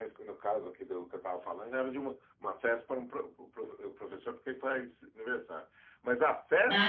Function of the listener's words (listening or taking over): listening